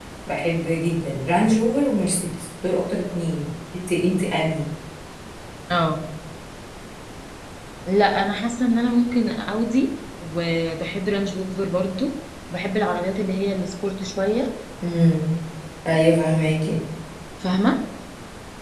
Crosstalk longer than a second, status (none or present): none